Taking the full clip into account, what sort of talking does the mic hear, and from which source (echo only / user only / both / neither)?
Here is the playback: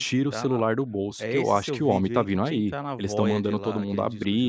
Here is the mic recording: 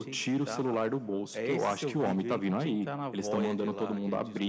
echo only